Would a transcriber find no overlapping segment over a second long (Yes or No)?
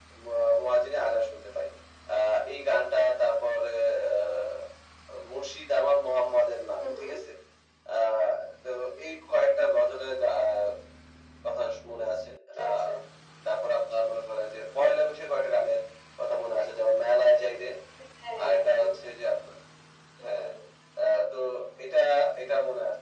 Yes